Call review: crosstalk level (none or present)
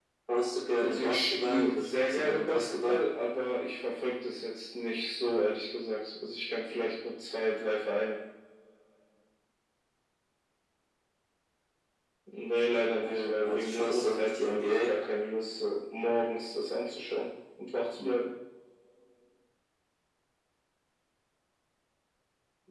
present